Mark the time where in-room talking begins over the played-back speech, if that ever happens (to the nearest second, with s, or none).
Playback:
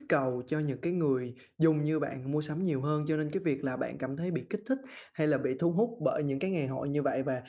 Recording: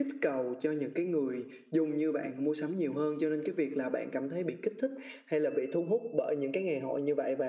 none